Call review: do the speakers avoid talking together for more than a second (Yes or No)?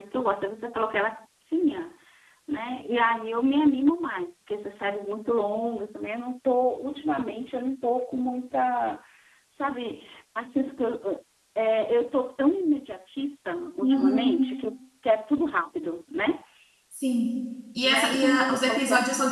No